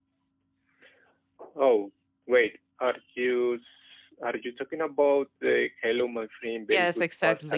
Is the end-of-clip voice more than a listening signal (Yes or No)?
Yes